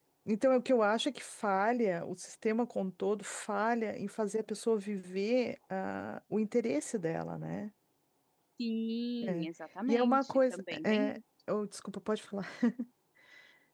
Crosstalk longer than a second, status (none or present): present